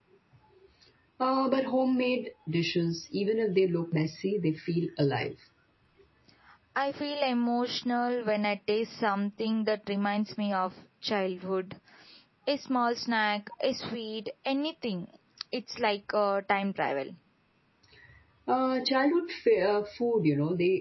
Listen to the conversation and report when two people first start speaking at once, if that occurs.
none

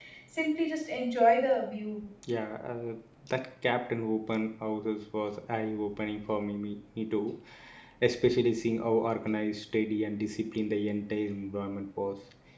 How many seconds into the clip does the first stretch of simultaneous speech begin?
none

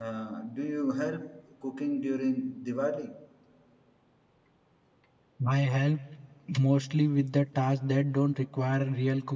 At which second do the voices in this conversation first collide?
none

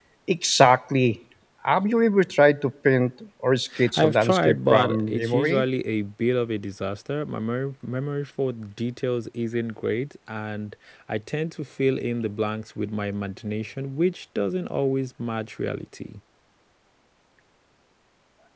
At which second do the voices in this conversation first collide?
3.7 s

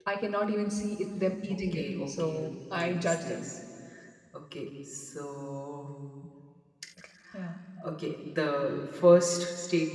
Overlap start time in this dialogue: 1.5 s

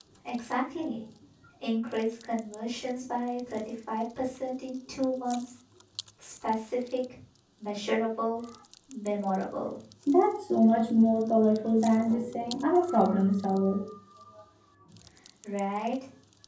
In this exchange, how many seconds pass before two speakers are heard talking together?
none

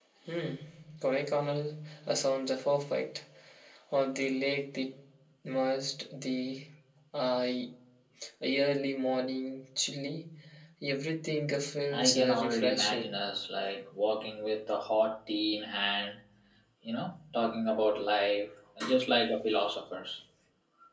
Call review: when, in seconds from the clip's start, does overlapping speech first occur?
11.9 s

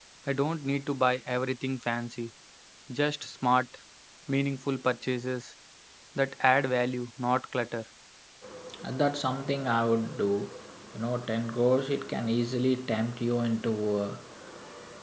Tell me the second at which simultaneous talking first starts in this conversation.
none

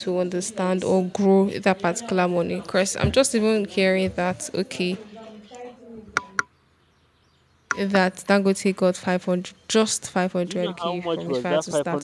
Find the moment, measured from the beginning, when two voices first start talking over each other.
10.5 s

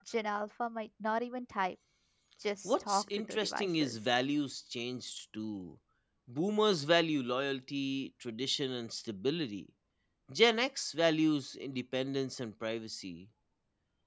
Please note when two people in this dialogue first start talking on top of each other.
2.6 s

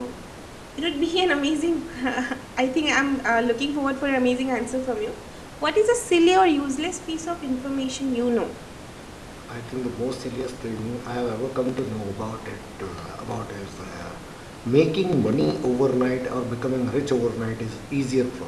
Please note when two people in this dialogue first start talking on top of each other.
none

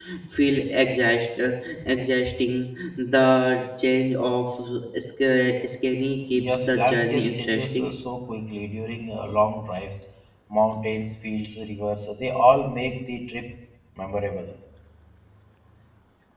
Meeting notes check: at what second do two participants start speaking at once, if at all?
6.3 s

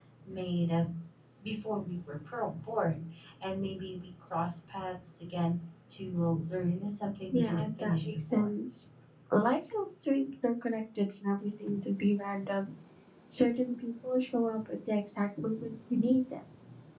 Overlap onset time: 7.3 s

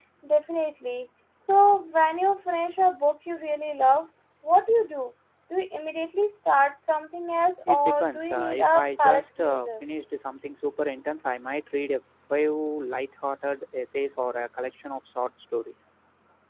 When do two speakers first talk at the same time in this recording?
7.7 s

